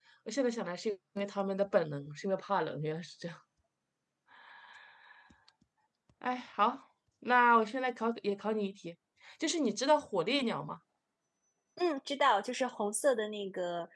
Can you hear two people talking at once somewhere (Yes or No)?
No